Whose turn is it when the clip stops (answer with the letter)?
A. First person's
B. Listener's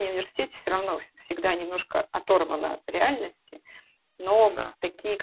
A